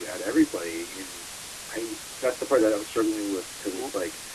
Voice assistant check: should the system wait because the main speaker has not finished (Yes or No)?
Yes